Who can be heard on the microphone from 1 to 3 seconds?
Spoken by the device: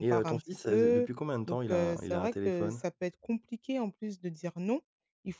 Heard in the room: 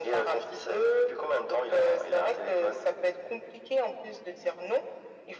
echo only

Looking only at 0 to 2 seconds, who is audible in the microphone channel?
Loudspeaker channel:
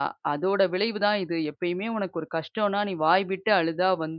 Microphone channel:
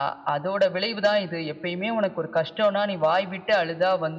echo only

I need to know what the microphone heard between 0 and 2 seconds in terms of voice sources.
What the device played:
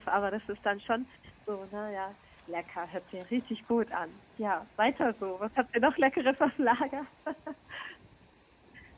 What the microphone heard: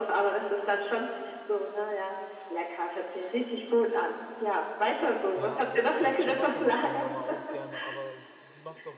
echo only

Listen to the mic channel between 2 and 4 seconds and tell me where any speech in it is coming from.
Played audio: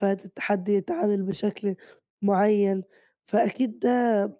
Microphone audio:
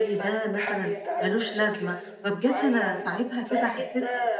both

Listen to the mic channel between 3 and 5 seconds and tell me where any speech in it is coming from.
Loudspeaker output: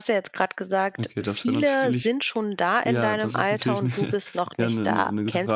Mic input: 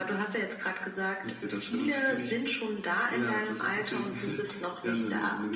echo only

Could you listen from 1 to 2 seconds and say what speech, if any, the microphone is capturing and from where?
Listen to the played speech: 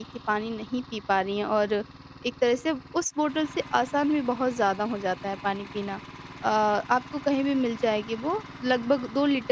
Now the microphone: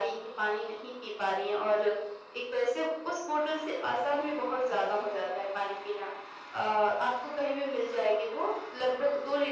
echo only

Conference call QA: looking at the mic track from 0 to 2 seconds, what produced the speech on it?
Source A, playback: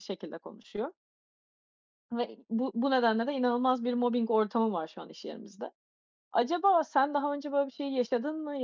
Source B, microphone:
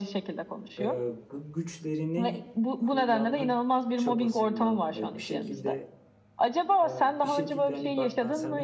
both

